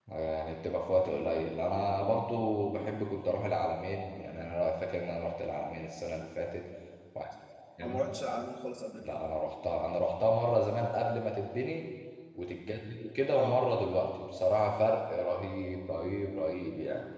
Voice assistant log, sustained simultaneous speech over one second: none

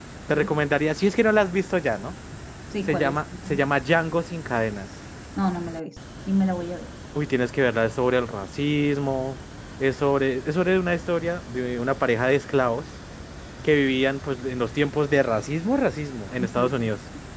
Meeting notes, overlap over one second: none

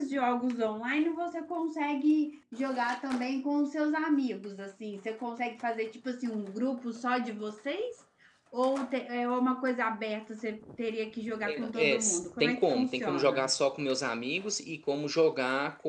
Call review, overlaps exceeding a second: present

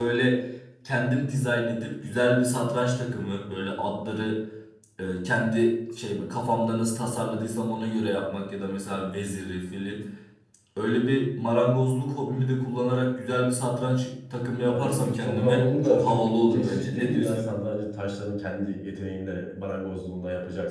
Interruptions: present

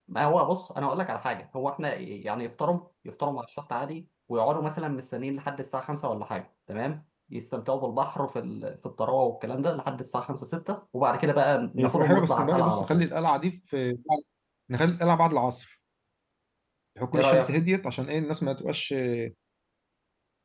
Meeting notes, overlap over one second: present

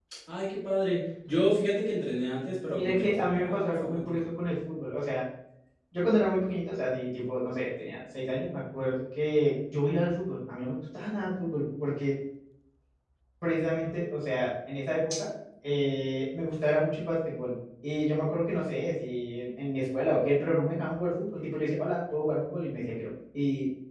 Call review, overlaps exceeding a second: present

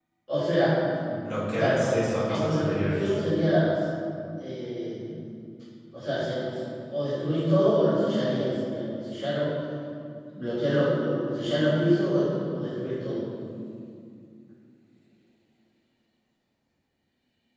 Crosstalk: present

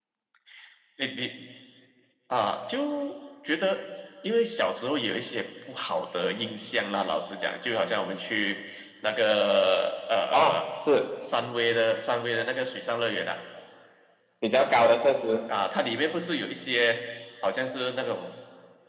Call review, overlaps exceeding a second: none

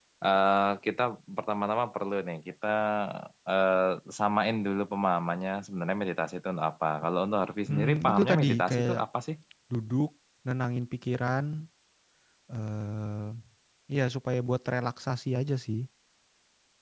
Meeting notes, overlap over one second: present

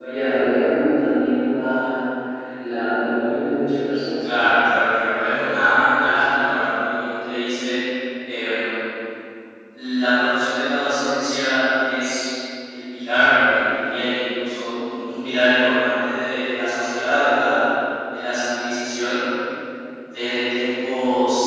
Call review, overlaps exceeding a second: none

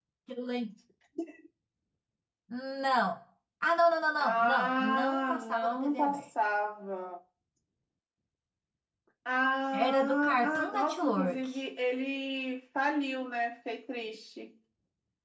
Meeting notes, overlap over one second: present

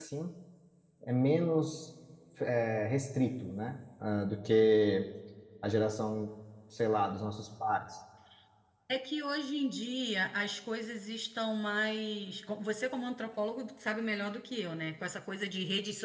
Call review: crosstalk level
none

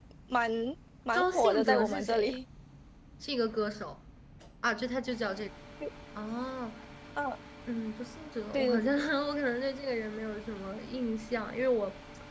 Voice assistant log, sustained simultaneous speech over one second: present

